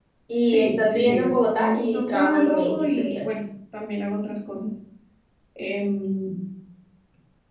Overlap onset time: 0.5 s

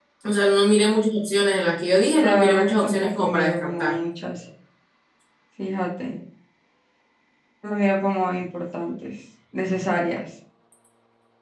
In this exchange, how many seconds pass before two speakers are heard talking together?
2.2 s

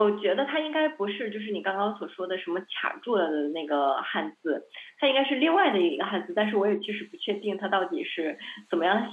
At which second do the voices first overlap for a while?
none

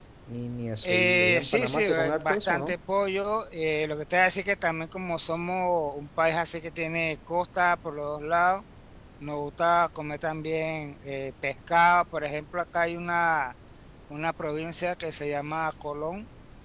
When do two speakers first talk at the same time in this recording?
0.9 s

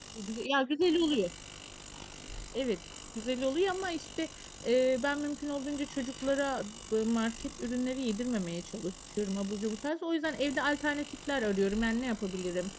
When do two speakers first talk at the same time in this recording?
none

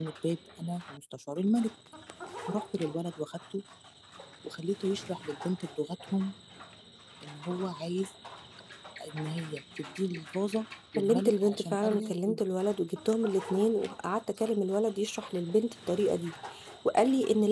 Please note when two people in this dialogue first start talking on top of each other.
11.0 s

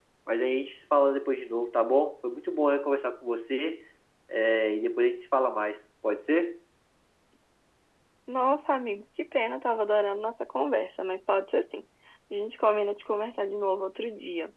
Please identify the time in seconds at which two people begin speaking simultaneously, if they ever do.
none

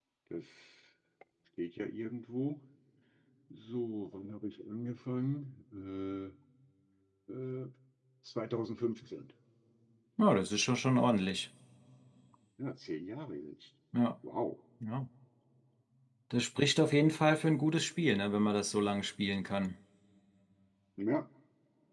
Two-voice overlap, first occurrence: none

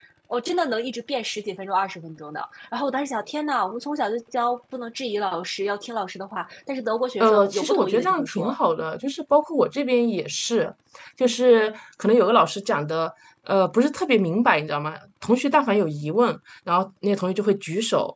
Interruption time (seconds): 7.2 s

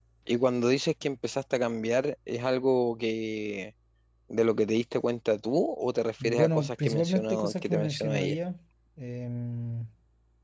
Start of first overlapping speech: 6.2 s

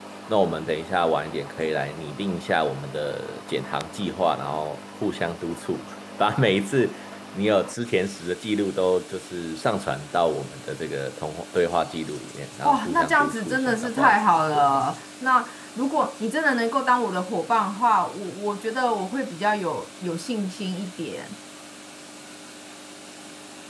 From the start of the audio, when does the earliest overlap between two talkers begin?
12.6 s

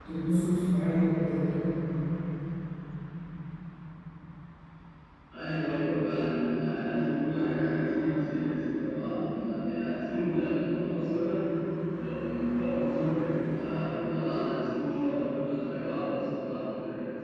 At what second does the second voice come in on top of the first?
none

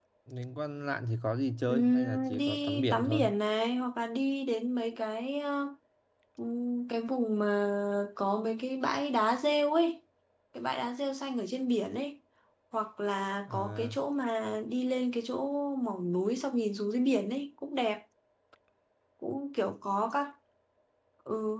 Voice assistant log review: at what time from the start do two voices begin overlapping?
1.7 s

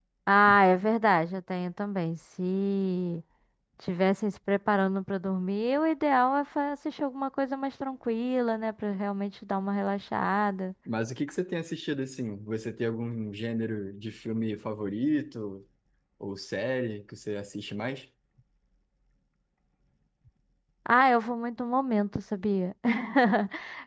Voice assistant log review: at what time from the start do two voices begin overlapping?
none

